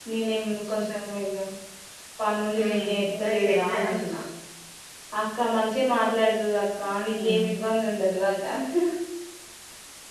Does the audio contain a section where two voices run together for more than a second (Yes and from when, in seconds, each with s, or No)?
Yes, from 2.6 s